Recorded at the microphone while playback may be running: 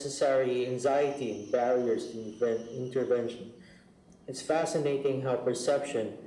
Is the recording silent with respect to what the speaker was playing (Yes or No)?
No